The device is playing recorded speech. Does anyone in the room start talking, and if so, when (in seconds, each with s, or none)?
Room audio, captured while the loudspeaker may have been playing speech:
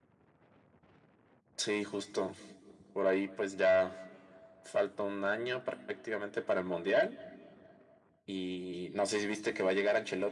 none